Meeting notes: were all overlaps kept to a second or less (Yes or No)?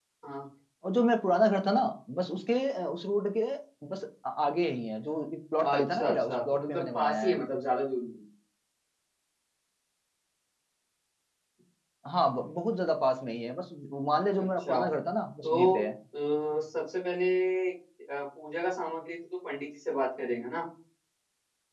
No